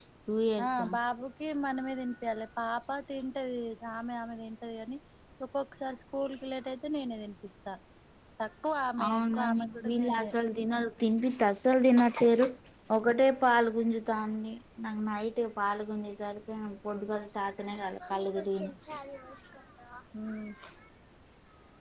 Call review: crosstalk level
present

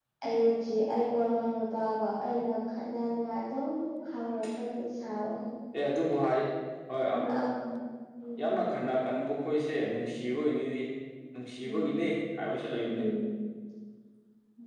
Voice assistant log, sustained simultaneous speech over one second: none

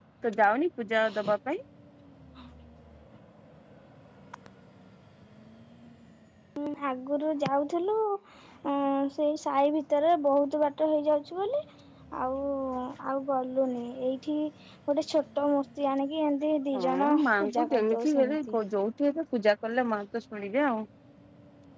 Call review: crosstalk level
present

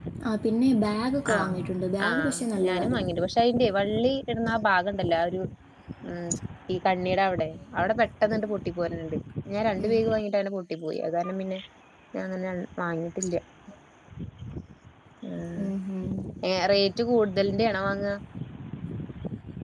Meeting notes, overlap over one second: none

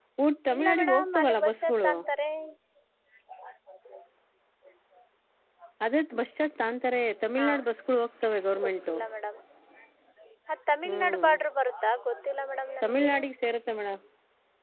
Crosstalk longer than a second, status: present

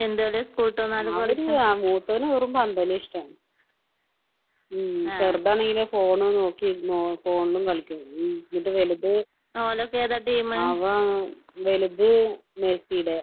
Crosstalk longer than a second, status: none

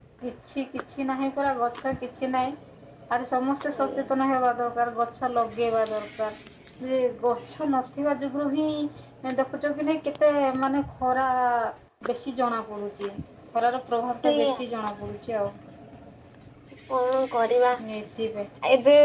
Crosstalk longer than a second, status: none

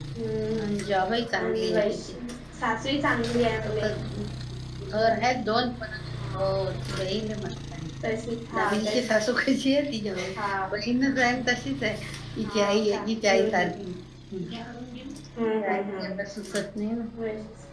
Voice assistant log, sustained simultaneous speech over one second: present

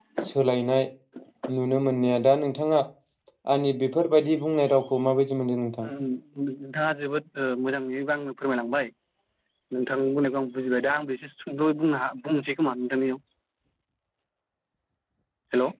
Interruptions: none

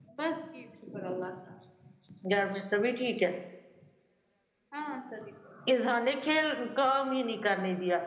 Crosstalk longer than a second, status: none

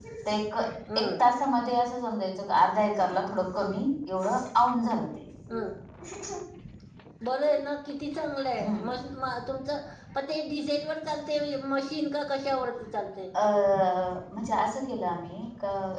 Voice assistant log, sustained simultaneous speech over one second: none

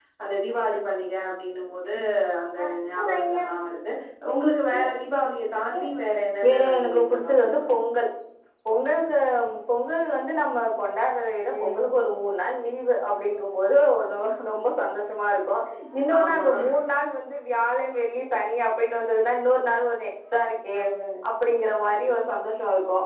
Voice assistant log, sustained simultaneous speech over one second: present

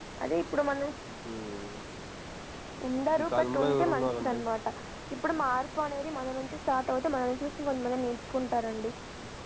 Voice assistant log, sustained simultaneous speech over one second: present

